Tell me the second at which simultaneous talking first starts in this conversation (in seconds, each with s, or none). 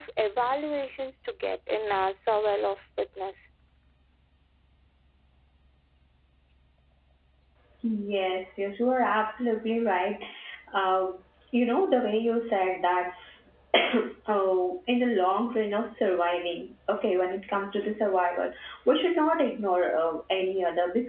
none